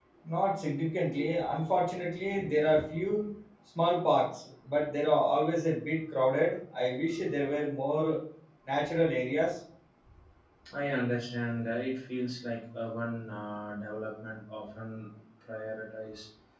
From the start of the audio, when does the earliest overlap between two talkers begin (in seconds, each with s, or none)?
none